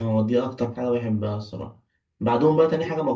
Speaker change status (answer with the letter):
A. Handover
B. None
B